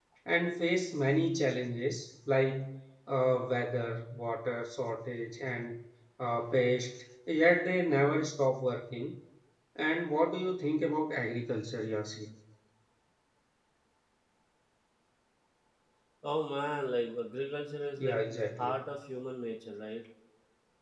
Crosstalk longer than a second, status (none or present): none